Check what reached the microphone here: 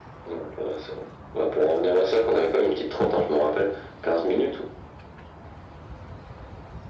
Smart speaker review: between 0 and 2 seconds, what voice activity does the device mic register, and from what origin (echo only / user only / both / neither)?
echo only